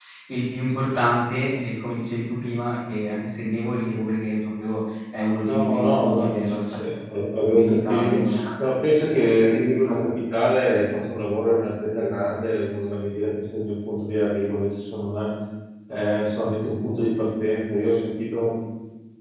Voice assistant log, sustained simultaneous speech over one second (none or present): present